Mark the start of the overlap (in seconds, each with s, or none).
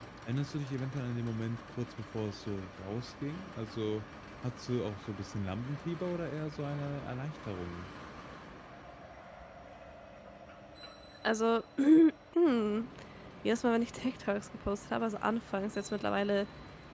none